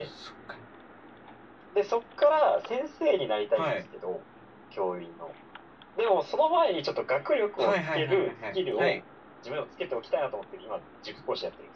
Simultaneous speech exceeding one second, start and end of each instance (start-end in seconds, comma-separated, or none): 7.6-9.0